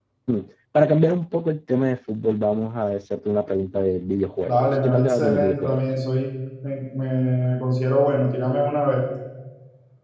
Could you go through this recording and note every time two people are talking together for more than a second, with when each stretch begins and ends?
4.4-5.8

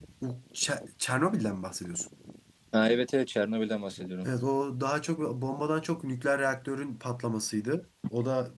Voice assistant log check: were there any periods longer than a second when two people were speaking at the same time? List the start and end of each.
none

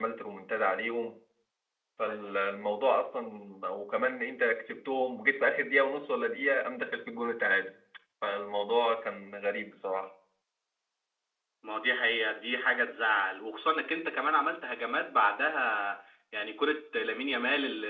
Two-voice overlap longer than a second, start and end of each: none

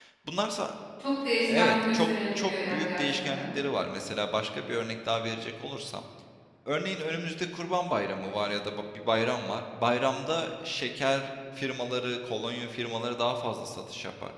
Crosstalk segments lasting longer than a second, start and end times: 1.5-3.5

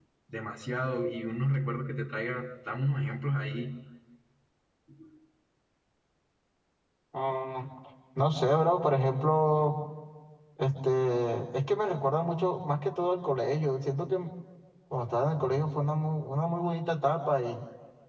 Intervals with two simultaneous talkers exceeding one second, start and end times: none

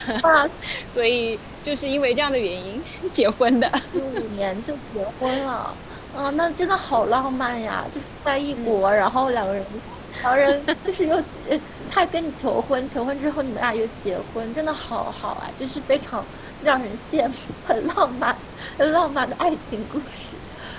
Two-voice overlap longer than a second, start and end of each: none

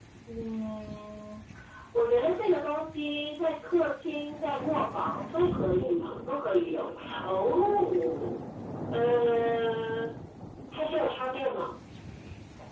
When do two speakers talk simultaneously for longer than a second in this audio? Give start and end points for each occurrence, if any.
5.3-6.8

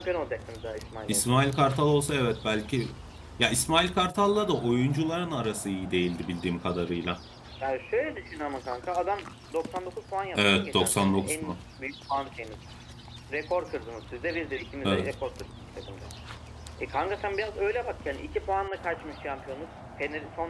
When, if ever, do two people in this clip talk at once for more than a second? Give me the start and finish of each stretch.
10.3-11.6

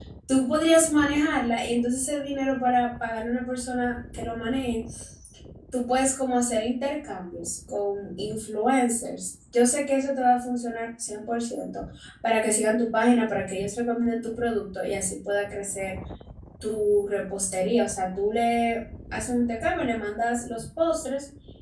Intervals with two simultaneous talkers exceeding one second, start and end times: none

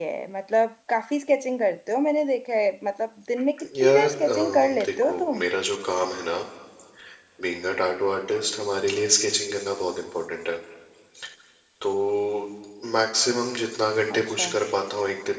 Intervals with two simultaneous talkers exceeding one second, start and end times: 3.8-5.4

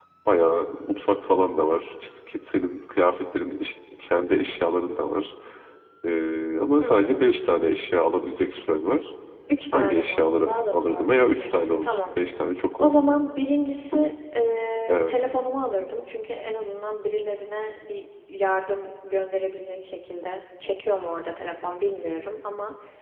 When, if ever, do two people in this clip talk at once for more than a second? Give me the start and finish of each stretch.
9.7-12.1

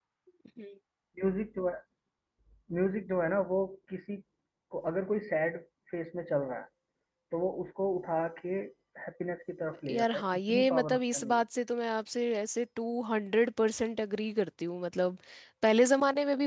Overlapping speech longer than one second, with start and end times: 9.9-11.3

